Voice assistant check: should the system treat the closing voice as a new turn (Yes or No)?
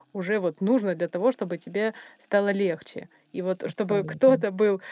No